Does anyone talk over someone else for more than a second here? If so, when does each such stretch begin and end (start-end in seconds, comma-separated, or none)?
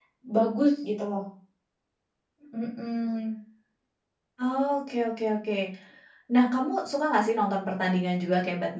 none